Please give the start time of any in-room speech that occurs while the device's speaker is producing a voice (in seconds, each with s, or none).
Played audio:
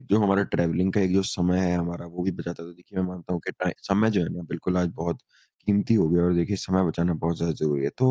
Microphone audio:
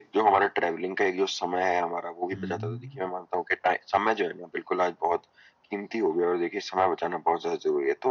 2.3 s